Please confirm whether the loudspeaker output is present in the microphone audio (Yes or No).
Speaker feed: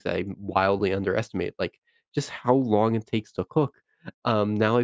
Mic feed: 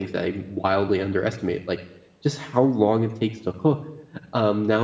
Yes